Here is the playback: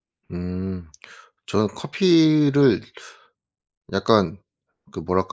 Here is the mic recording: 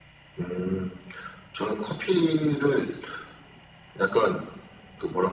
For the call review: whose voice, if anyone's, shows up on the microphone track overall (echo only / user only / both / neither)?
echo only